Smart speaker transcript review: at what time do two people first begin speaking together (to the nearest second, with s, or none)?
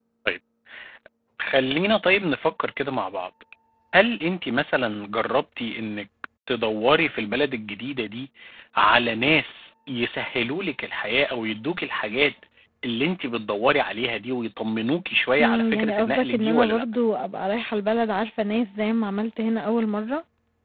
15 s